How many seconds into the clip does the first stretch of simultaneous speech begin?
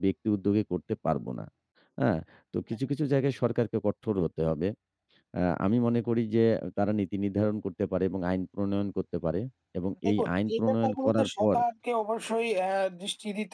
10.1 s

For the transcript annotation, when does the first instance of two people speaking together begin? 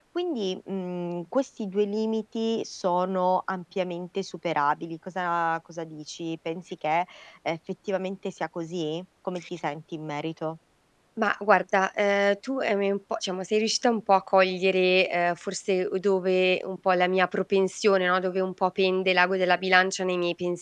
none

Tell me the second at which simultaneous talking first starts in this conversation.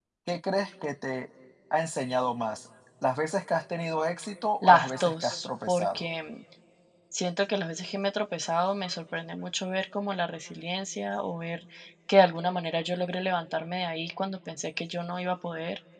4.6 s

